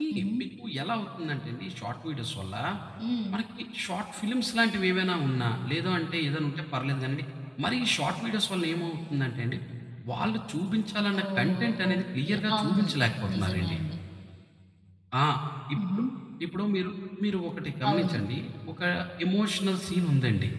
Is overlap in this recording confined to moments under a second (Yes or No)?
No